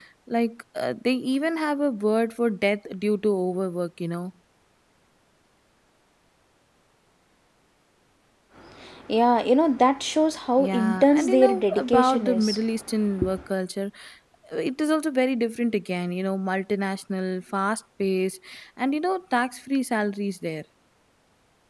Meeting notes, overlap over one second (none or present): present